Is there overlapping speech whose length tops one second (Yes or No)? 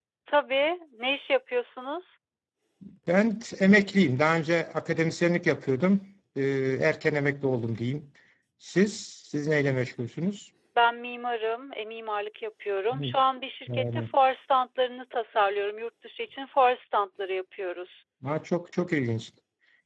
No